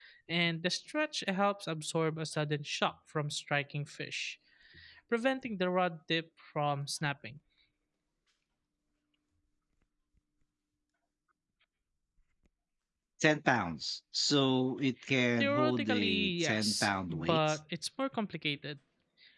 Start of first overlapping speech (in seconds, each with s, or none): 15.4 s